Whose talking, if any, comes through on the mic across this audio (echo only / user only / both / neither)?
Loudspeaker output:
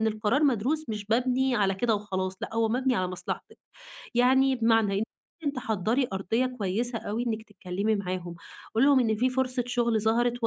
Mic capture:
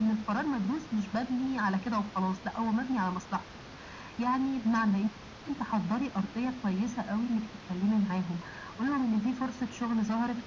echo only